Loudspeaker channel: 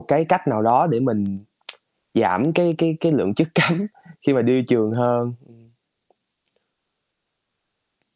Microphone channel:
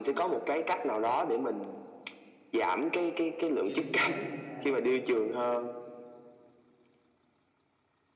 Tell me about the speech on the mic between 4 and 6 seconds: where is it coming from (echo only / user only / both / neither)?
both